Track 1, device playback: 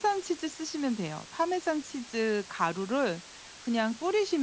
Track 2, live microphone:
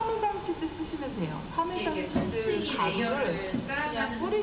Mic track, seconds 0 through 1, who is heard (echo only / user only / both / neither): echo only